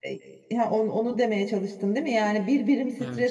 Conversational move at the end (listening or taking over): listening